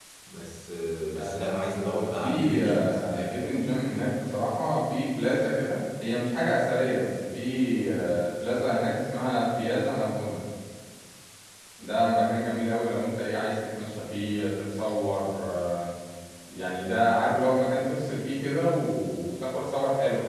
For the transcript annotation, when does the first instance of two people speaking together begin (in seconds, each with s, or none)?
1.1 s